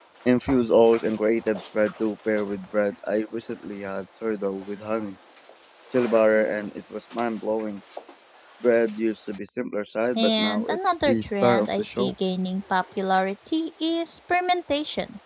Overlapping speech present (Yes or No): Yes